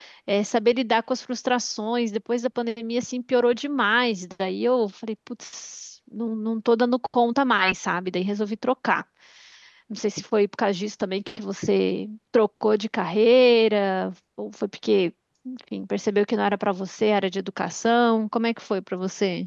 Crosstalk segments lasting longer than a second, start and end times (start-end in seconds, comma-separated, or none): none